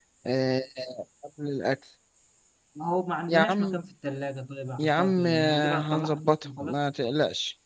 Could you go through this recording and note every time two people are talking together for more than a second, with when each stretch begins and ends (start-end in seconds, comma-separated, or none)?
4.8-6.8